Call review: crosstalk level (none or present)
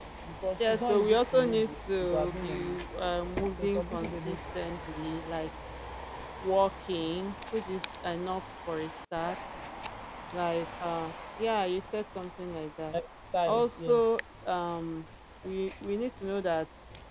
present